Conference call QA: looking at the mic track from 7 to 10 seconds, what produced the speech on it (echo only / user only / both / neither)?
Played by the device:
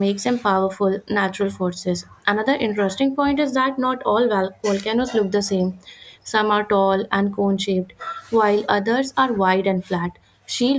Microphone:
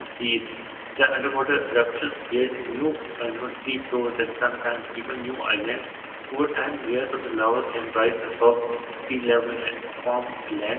user only